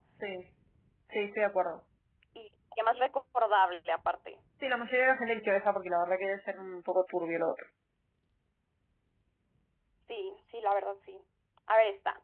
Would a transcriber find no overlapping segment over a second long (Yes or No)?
Yes